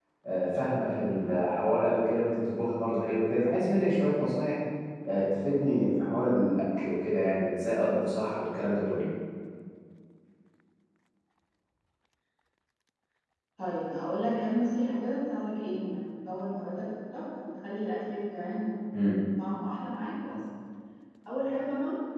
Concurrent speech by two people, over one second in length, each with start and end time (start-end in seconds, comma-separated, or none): none